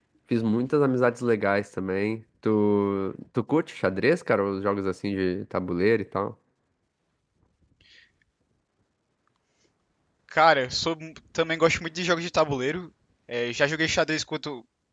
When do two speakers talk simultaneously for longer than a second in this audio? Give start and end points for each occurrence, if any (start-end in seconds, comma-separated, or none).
none